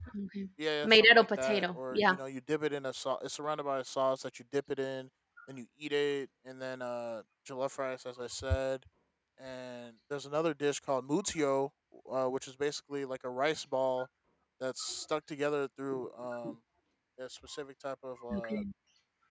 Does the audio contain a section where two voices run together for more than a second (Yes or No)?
Yes